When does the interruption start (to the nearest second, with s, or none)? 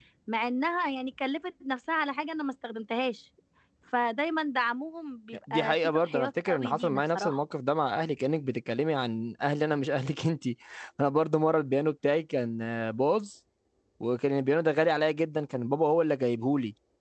5 s